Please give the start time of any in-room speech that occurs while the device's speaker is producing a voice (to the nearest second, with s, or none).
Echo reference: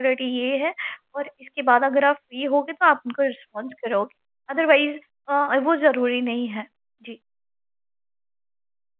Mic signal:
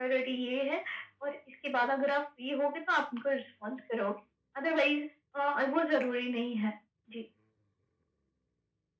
none